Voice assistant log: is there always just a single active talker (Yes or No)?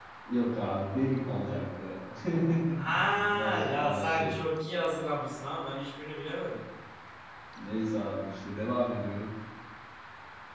No